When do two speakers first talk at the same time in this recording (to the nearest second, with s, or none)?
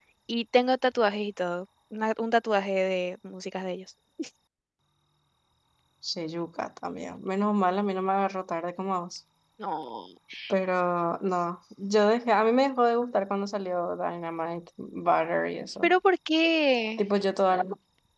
none